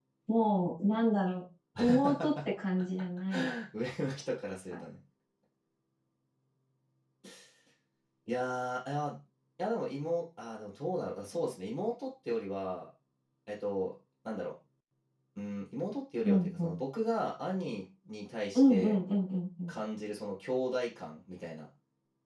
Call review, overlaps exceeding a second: none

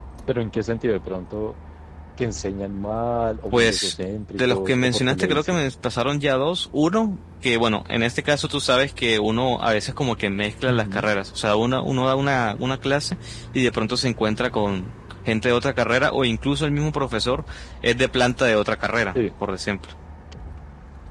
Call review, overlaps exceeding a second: present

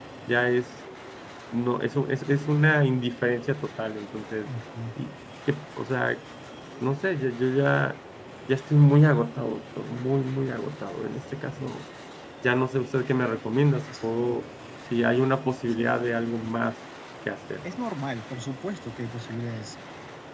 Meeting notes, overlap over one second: none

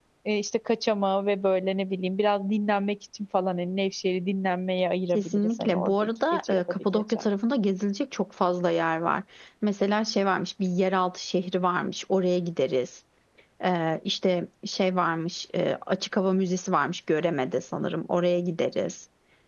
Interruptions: present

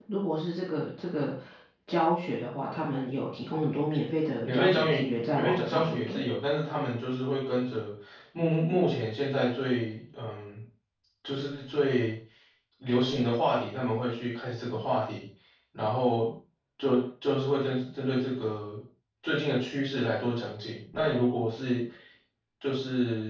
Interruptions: present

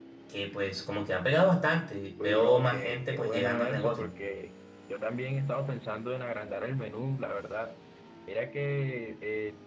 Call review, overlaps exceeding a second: present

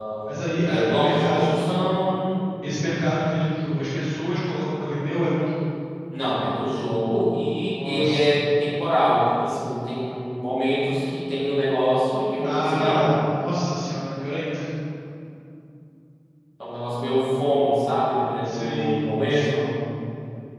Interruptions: present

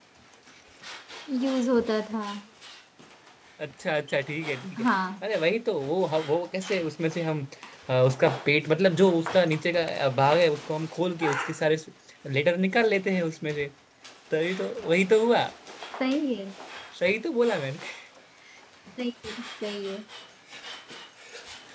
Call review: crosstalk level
none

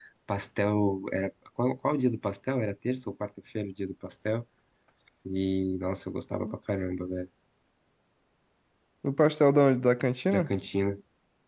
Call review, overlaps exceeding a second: none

